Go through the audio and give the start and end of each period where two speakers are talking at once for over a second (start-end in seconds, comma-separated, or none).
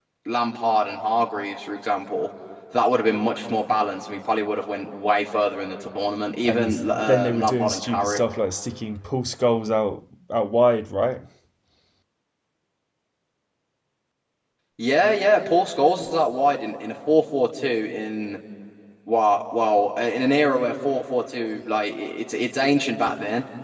6.4-8.2